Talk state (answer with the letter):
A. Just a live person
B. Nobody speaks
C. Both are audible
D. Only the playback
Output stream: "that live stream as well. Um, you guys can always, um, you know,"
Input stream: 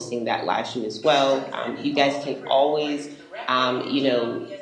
C